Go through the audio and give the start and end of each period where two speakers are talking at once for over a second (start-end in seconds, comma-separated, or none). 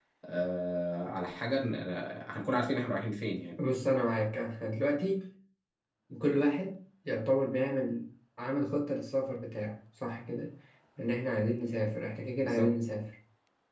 none